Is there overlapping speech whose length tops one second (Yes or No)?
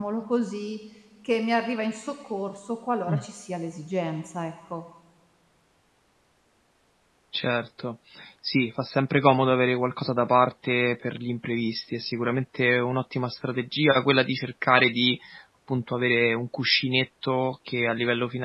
No